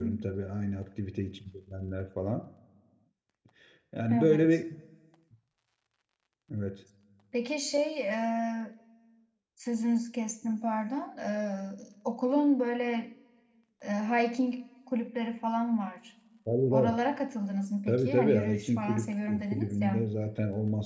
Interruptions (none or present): present